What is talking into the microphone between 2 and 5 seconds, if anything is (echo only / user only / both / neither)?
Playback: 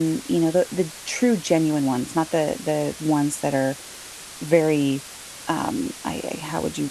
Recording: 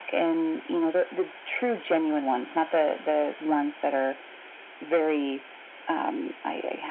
echo only